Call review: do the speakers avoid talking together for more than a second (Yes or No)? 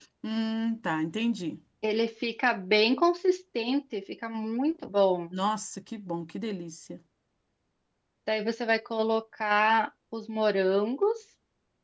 Yes